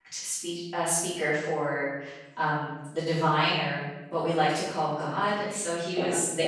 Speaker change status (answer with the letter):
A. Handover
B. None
B